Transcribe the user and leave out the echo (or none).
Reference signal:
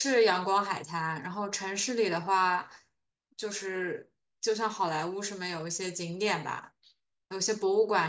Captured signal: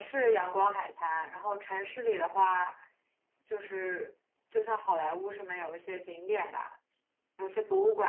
none